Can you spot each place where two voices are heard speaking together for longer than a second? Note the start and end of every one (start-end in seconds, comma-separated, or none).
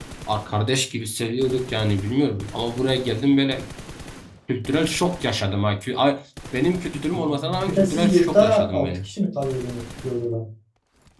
7.1-9.1